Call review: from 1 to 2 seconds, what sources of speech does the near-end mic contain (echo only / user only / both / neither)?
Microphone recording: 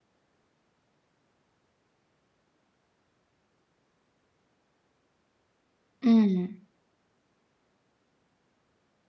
neither